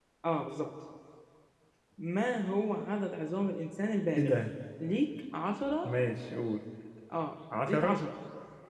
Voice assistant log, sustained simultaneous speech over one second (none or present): none